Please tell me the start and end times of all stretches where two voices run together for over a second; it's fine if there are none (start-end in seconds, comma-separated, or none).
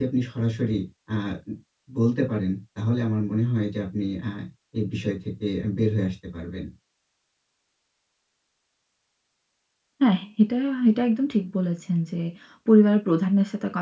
none